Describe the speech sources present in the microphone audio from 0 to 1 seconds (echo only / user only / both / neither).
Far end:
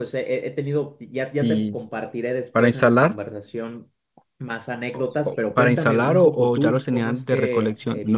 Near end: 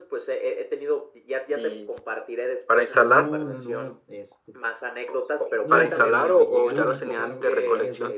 echo only